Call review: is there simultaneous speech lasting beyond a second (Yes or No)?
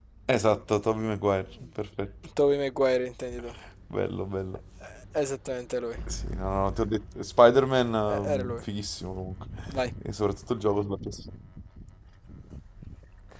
No